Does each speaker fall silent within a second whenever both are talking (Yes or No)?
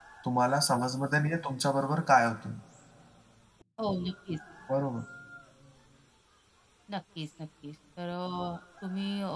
Yes